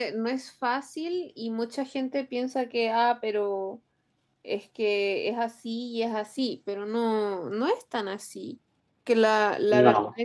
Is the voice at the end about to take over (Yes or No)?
No